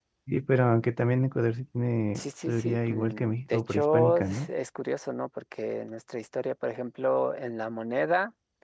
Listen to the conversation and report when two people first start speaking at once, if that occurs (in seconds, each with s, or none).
2.1 s